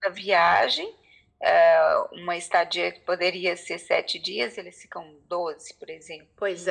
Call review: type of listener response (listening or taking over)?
taking over